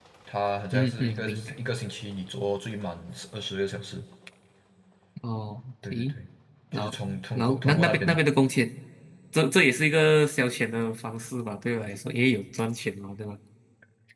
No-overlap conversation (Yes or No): No